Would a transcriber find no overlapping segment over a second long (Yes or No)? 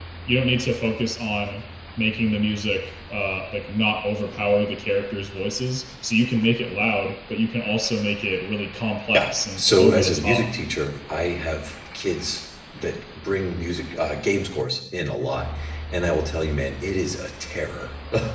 No